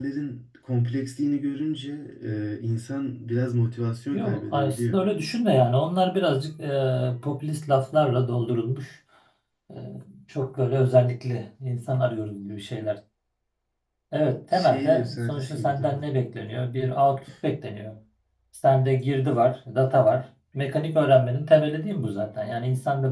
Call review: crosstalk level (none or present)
present